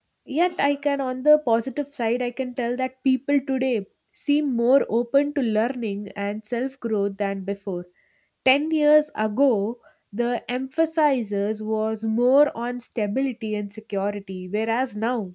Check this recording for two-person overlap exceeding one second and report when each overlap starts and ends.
none

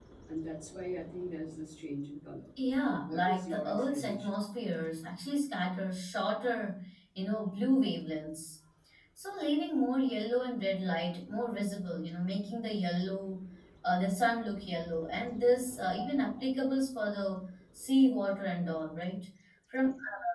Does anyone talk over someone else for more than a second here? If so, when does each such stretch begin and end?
2.9-4.3

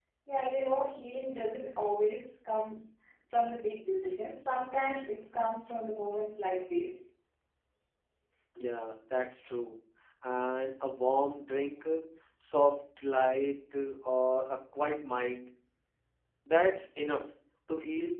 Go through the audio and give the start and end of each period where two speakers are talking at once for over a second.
none

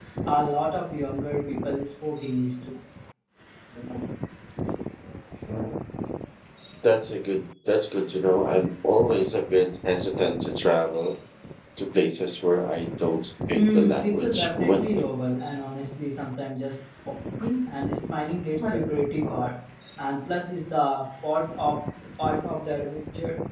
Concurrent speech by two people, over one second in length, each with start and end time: 13.6-15.1

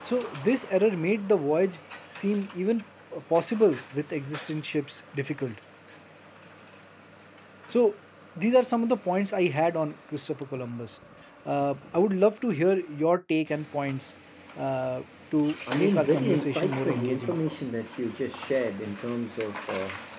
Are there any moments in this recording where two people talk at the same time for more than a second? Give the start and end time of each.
15.7-17.4

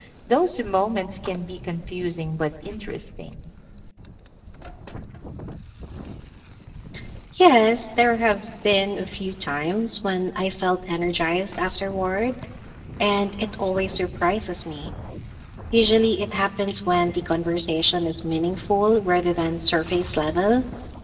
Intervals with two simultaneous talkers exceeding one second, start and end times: none

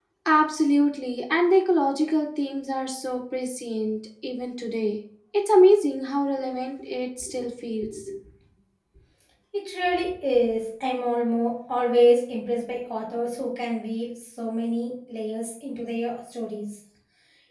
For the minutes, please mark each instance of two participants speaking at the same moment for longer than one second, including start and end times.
none

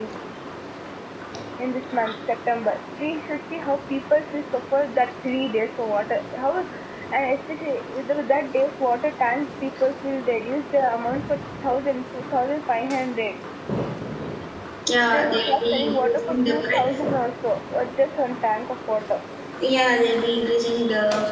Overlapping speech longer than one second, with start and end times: 15.0-16.9

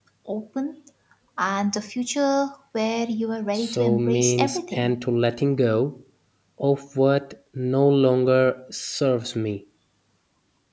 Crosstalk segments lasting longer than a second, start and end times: 3.5-5.0

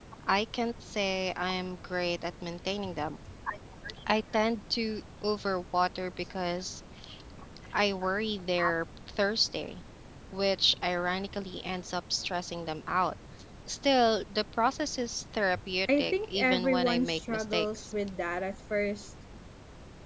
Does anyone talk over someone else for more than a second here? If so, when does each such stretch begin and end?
16.0-17.9

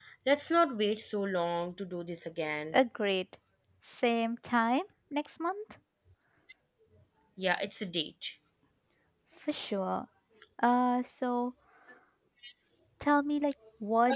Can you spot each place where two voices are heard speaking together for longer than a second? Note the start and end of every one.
none

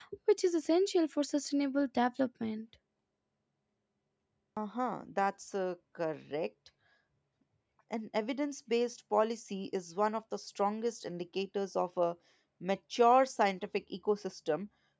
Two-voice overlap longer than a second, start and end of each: none

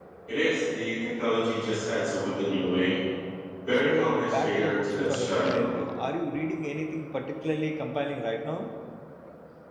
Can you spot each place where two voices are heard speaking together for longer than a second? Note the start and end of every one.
3.7-5.7

